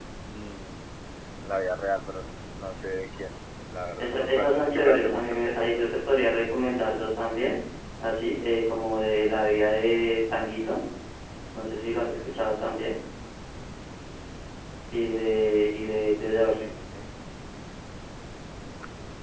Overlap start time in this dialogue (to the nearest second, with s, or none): 4 s